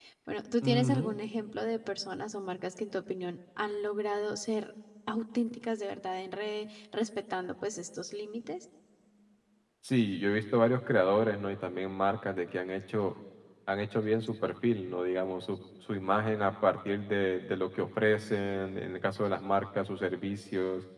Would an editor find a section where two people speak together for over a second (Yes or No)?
No